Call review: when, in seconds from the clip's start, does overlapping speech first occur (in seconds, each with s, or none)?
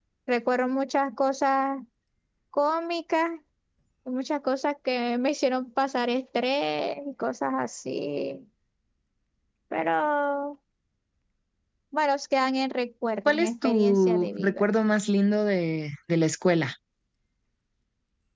13.3 s